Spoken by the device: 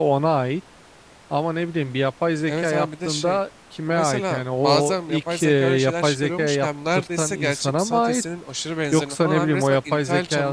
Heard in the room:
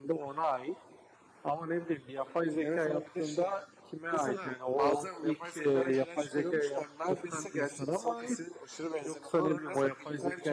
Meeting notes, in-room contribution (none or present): none